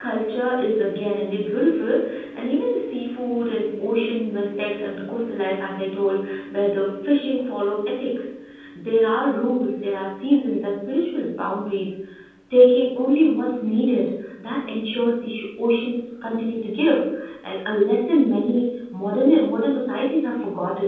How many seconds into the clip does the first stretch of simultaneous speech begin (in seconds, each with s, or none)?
none